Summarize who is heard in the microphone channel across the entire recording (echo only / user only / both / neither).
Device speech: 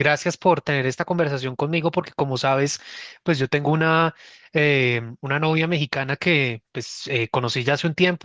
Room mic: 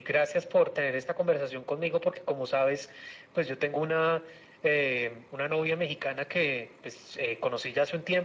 echo only